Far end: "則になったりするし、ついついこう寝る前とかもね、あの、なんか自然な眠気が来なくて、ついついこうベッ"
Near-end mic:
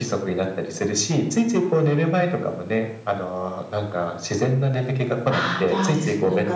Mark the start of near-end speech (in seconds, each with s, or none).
5.3 s